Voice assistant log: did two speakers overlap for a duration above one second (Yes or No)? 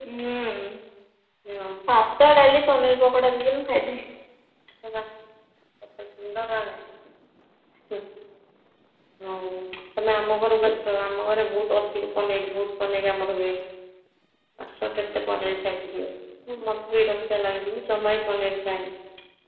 No